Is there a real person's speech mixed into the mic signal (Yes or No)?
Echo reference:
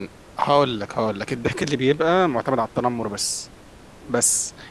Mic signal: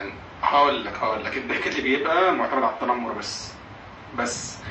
No